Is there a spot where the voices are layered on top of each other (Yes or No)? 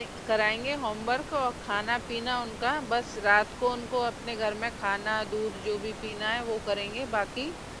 No